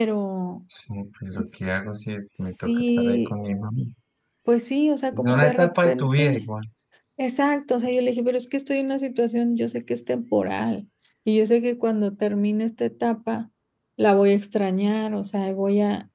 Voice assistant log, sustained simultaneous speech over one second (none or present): present